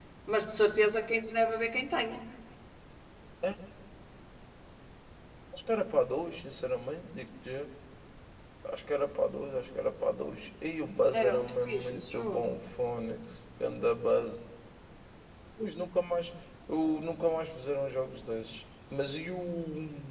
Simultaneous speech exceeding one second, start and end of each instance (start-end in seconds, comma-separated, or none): 11.1-12.5